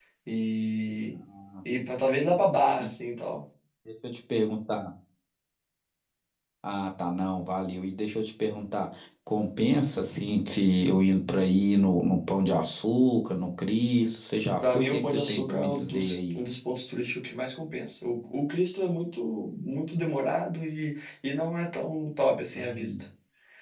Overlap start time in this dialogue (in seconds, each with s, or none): 14.6 s